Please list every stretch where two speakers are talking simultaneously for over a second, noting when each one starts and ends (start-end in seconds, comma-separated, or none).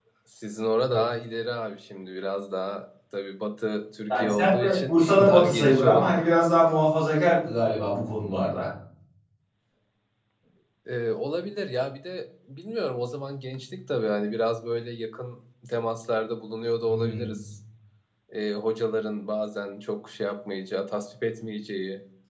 4.1-6.2